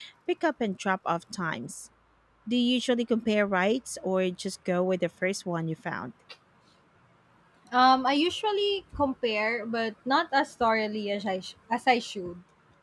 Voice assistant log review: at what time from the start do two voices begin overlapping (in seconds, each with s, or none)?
none